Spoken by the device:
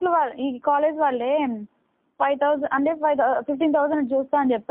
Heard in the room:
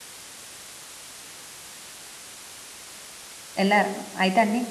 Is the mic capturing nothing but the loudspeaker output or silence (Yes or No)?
No